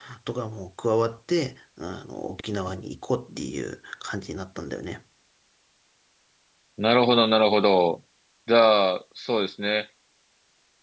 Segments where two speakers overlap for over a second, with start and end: none

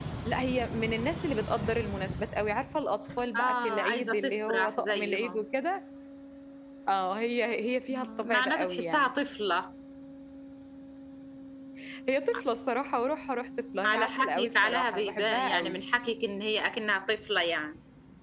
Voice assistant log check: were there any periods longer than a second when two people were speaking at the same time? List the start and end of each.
3.4-5.4, 7.9-9.1, 13.8-15.8

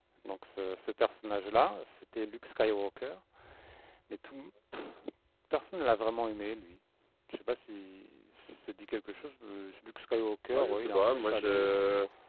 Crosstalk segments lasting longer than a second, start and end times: 10.5-11.8

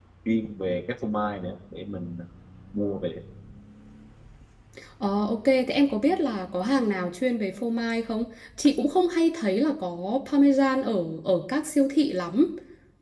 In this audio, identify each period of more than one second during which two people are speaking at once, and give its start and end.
none

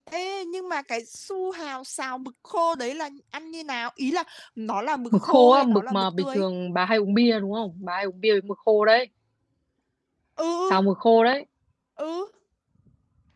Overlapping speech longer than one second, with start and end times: 5.1-6.4

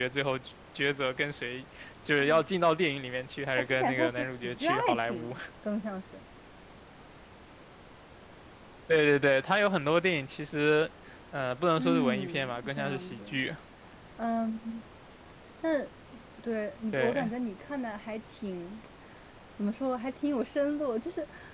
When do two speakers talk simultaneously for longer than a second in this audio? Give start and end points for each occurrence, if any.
3.6-5.3, 11.8-13.4

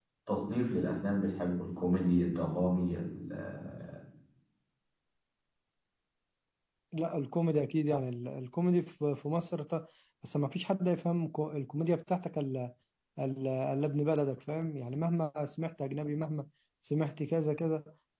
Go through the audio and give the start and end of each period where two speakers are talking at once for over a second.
none

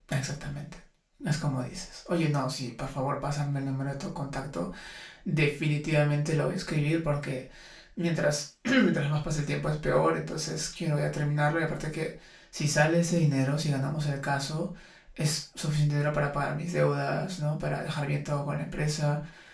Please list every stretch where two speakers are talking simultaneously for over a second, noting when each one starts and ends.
none

